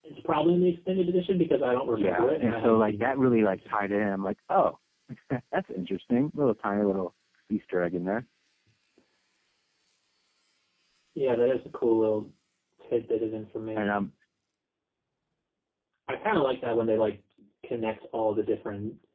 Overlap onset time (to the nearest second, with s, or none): 2 s